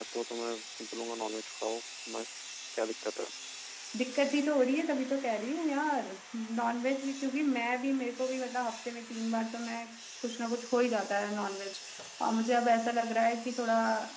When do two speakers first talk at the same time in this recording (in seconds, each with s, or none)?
none